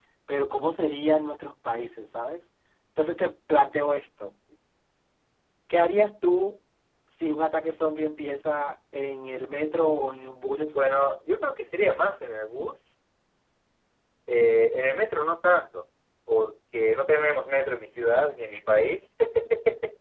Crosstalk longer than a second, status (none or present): none